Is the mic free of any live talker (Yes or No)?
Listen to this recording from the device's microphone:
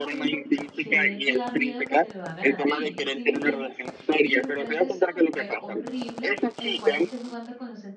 No